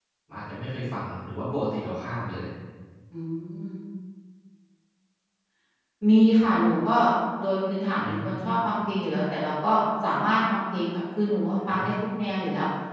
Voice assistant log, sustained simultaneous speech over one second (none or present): none